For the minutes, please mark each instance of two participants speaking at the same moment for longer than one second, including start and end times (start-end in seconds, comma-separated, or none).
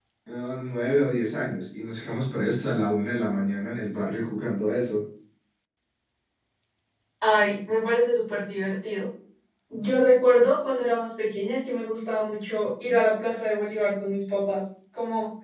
none